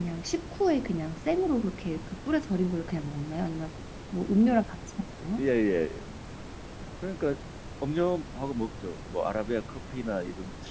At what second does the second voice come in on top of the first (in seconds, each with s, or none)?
none